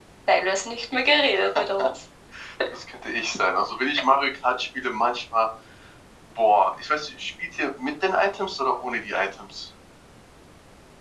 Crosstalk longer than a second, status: none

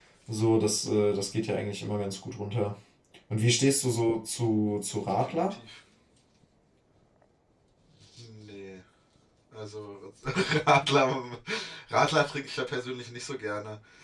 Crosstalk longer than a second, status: none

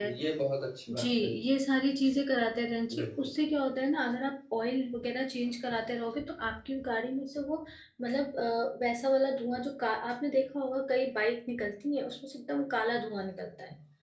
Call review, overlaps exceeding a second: none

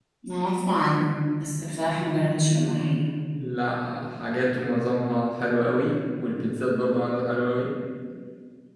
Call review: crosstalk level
none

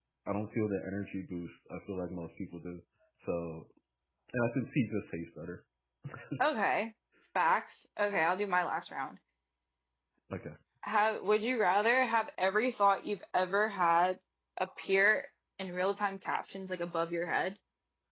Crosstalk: none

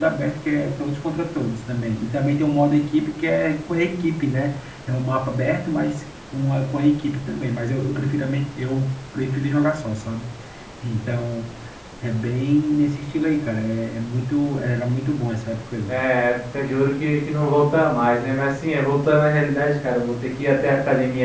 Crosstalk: none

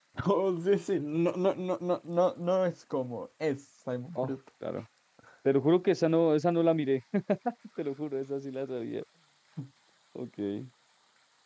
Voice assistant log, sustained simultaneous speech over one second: none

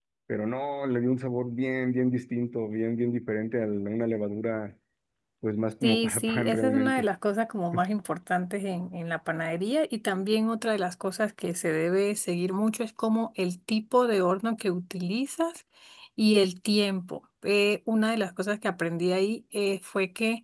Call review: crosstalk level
present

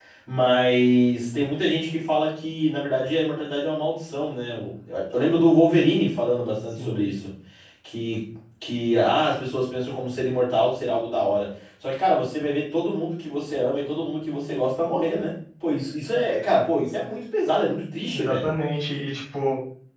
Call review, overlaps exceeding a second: none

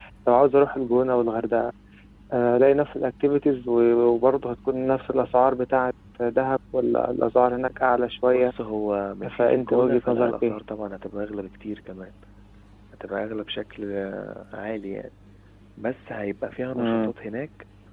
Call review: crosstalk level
present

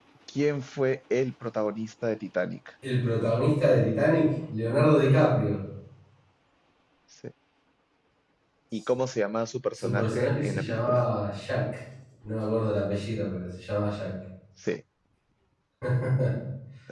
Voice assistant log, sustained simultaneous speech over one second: present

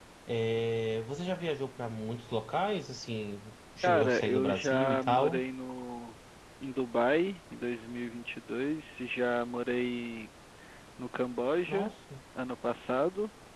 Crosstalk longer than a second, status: present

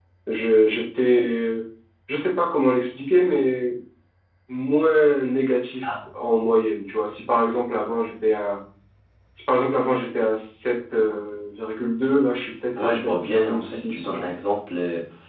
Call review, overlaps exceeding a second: present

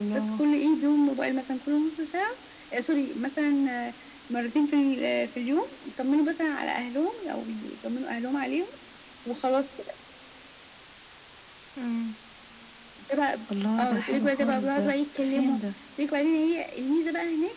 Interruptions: present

